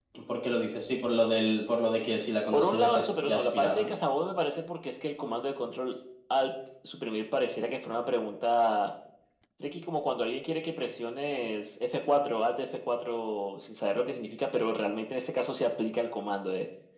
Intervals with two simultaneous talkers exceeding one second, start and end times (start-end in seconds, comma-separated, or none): 2.5-3.9